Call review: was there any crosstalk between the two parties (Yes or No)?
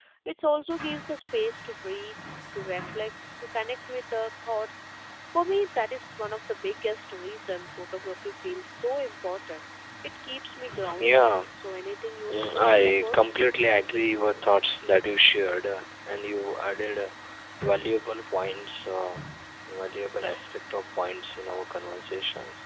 Yes